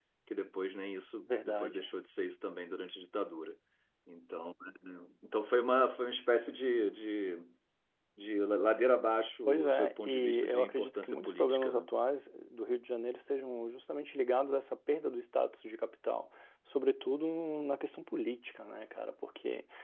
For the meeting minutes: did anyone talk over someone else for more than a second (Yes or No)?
Yes